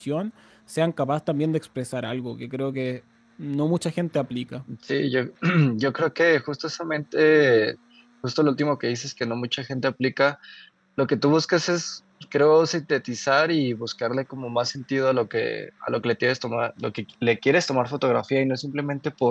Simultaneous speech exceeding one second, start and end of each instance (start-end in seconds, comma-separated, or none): none